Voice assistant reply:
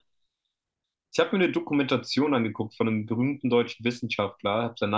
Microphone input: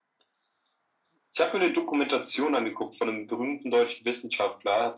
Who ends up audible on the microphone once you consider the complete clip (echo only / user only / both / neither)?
echo only